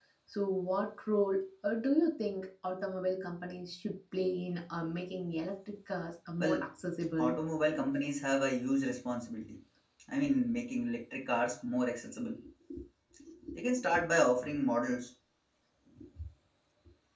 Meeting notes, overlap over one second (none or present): none